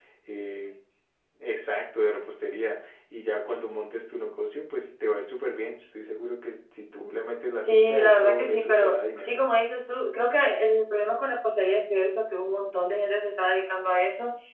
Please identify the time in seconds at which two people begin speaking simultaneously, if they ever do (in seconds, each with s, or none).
7.6 s